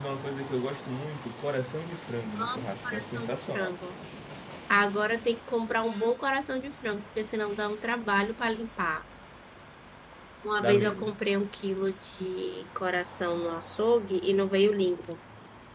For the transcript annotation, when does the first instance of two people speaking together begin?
2 s

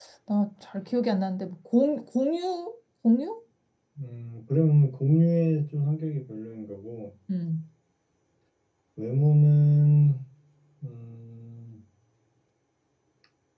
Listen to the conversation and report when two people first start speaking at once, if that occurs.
none

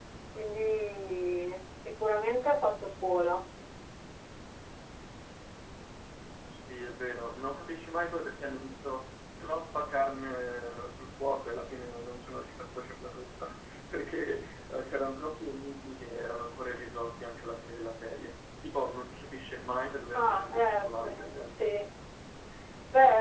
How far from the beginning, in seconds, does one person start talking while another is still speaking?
20 s

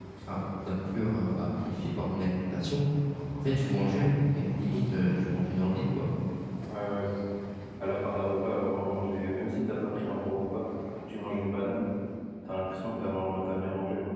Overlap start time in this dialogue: none

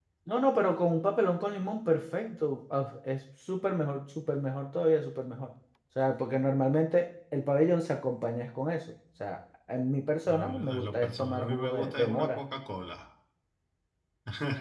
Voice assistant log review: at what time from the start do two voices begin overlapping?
10 s

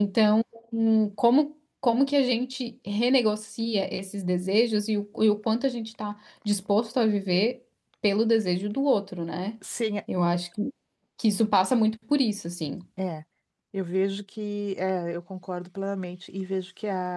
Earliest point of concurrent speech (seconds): none

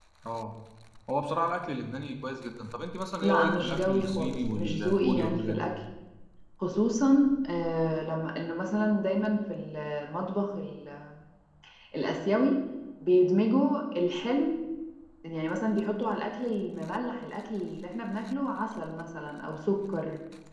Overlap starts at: 3 s

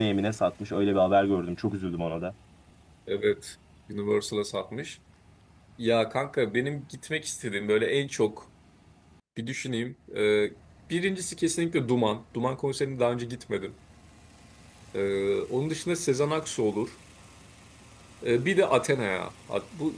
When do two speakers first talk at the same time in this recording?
none

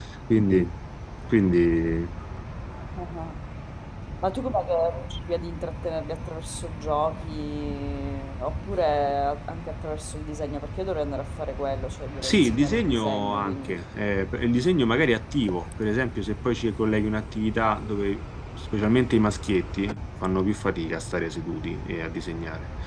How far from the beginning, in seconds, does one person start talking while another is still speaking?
12 s

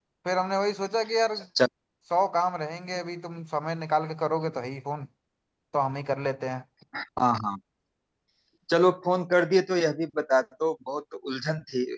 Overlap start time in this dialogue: none

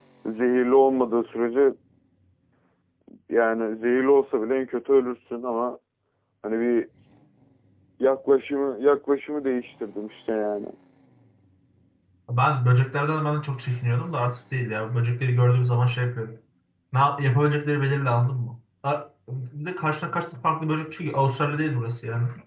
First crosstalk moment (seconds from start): none

